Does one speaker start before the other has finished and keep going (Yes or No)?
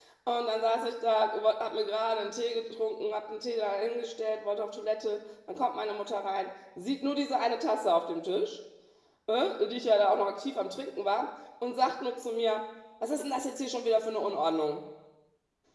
No